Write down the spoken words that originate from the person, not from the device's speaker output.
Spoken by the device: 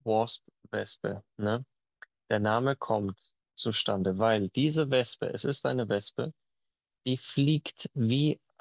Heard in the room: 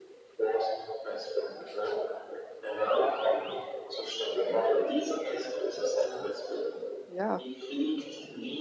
Ja,

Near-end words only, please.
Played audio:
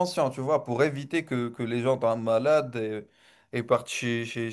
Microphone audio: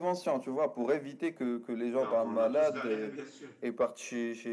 Ben, on a tous galéré, bien sûr.

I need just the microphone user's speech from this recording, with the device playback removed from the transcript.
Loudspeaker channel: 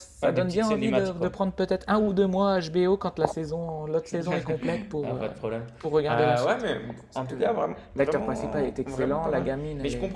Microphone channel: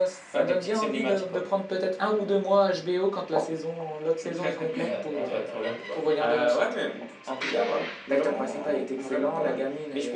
Ça, tu as t'as regardé toi?

